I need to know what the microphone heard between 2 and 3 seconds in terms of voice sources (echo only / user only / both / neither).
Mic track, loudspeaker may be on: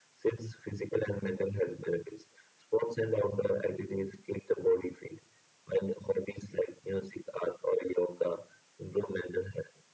echo only